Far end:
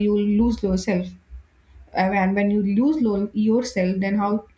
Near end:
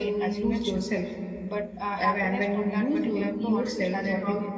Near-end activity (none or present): present